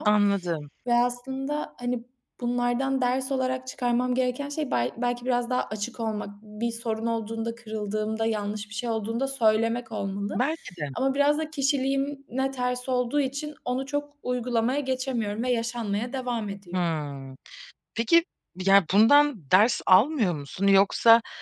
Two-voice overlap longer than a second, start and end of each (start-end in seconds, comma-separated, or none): none